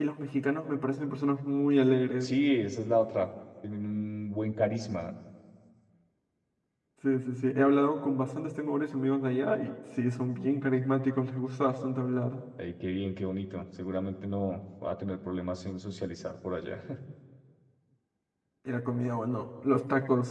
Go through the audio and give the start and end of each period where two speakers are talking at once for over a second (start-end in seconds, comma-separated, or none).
none